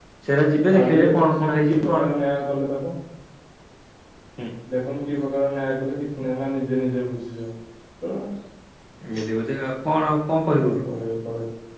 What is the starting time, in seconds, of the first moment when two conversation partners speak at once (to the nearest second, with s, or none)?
1 s